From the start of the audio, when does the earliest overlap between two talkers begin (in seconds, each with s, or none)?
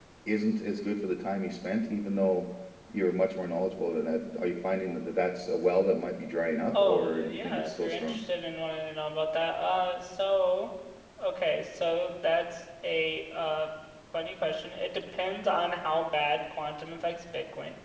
6.7 s